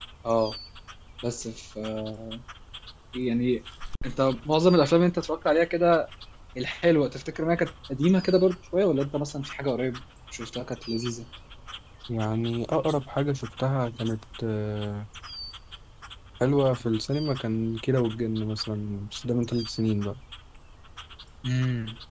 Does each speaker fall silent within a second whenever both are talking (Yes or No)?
Yes